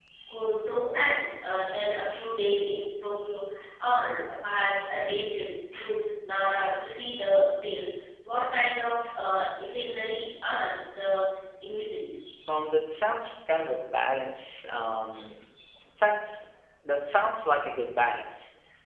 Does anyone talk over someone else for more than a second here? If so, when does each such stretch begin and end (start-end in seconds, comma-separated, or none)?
none